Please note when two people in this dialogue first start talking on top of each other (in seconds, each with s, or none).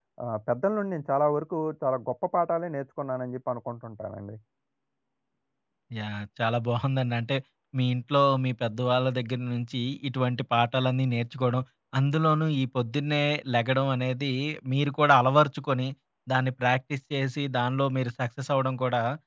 none